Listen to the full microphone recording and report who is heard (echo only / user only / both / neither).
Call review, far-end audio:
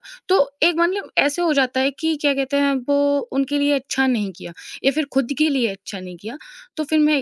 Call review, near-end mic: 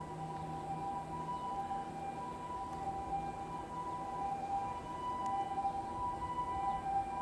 neither